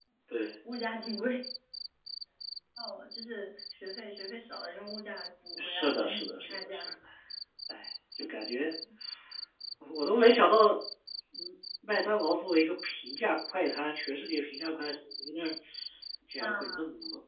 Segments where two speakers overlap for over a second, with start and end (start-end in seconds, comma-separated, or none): 5.6-6.8